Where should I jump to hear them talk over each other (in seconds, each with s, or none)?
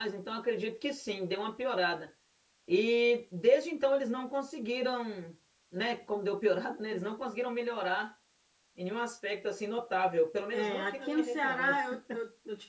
10.5 s